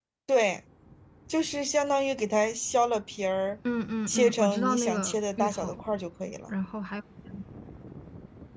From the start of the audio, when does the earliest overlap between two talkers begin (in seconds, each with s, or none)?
4.1 s